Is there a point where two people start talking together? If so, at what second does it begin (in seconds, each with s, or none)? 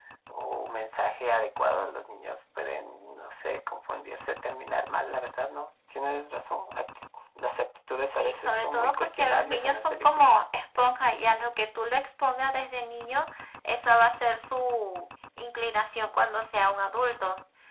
8.1 s